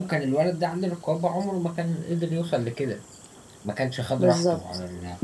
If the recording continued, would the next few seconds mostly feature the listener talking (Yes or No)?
Yes